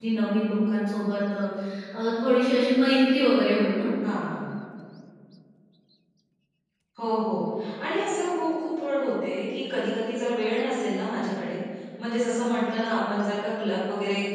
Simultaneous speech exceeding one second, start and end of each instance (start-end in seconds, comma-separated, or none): none